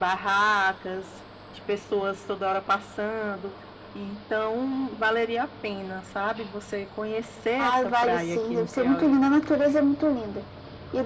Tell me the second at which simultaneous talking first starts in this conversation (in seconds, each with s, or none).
7.6 s